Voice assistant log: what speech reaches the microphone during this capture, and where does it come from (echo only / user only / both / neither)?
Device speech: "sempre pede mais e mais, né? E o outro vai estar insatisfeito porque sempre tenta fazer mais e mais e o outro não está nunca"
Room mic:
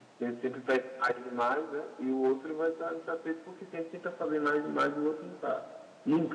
echo only